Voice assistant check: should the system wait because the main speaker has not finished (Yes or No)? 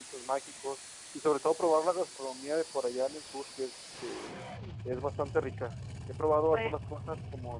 Yes